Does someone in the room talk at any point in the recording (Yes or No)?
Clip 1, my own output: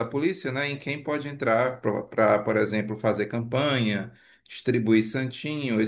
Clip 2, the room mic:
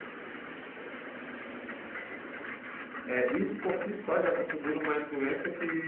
Yes